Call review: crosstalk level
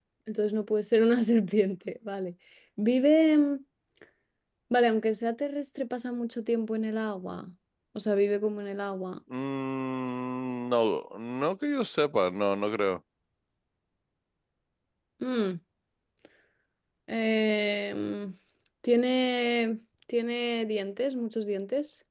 none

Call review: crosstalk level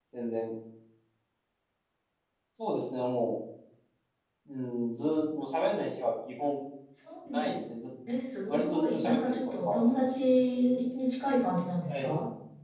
present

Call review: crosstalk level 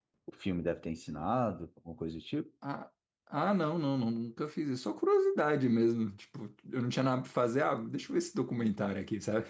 none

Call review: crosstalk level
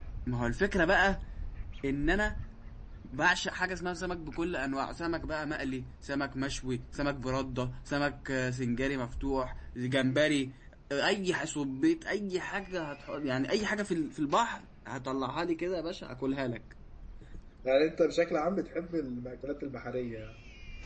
none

